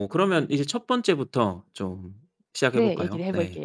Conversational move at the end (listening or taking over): taking over